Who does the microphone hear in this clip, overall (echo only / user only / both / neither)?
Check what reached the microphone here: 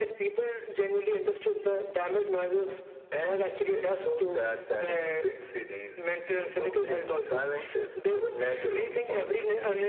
echo only